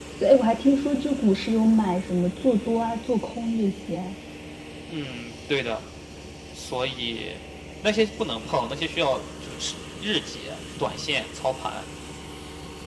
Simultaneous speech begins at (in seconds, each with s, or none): none